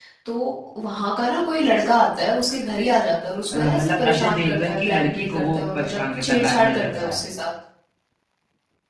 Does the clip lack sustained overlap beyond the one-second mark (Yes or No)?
No